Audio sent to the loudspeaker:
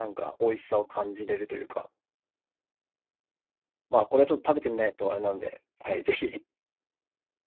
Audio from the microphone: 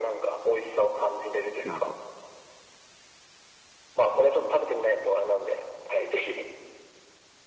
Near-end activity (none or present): present